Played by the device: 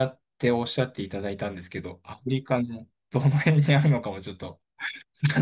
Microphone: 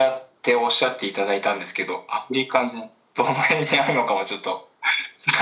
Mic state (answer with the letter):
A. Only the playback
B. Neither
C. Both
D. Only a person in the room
A